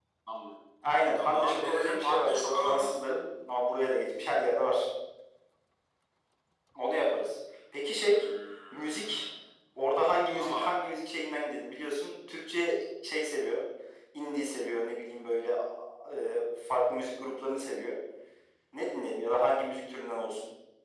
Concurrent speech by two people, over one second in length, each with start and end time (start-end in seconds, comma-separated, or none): 1.1-3.0